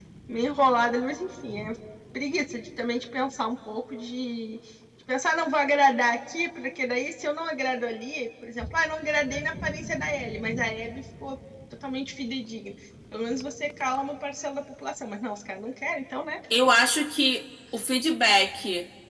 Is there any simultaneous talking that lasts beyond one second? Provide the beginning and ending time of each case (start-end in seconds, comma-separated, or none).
none